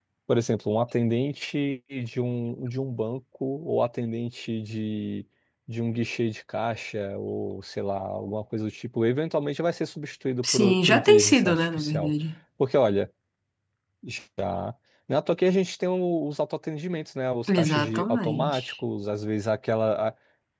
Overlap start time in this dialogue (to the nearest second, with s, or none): 10 s